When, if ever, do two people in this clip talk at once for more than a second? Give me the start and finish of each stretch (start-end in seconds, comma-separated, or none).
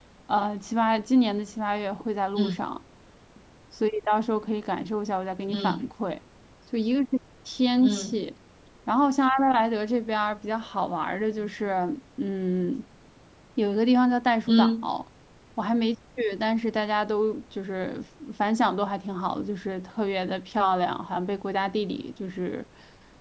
none